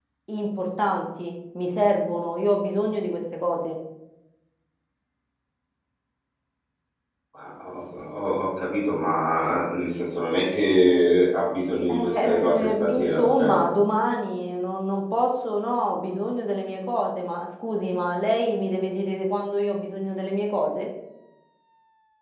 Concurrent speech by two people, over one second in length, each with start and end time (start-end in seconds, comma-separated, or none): 11.9-13.7